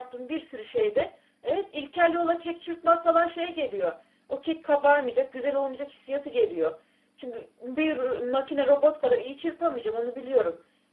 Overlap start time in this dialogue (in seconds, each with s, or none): none